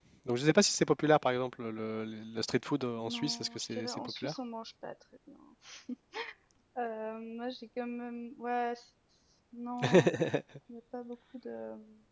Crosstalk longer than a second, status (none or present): present